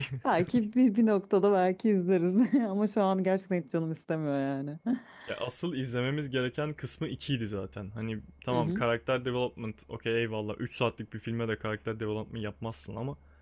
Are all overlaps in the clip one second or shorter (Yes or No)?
Yes